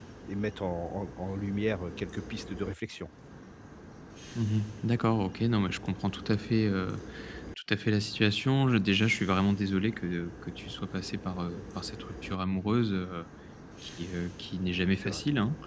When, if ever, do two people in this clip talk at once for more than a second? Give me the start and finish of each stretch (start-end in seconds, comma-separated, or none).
none